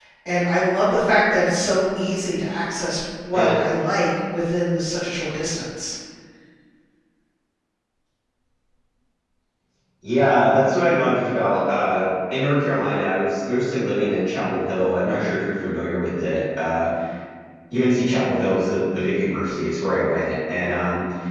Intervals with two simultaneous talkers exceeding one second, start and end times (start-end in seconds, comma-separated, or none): none